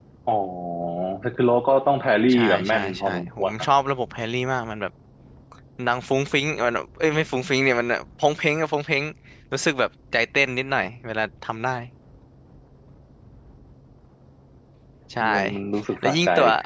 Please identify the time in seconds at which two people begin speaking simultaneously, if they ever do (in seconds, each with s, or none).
2.3 s